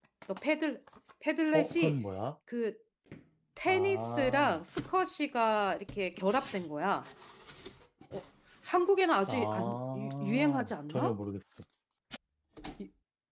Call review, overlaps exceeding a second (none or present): present